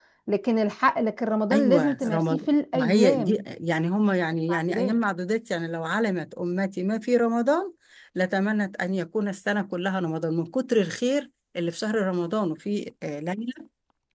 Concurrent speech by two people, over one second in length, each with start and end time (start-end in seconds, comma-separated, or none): 1.5-3.4